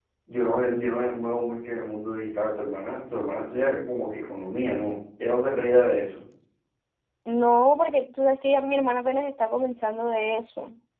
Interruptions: none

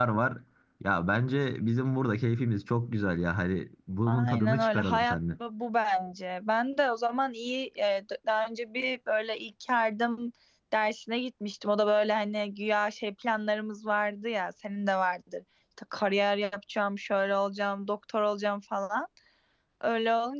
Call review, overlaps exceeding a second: present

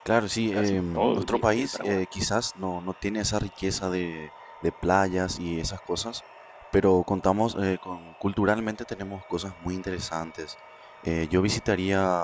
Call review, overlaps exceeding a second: present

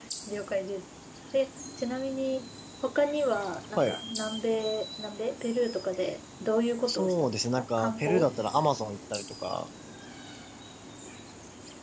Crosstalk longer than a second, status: present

